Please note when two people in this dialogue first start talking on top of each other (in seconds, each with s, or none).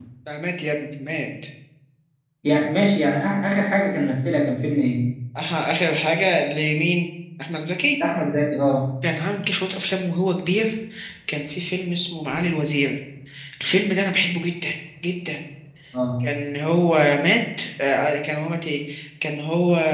none